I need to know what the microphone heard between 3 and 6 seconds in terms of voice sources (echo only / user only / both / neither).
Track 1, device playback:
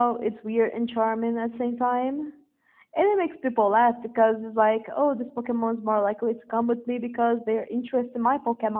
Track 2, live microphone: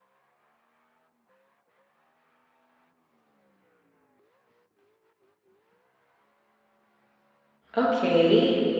neither